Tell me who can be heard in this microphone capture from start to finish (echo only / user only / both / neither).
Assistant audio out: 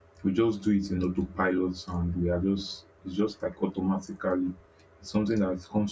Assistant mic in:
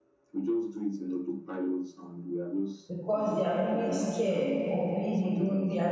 both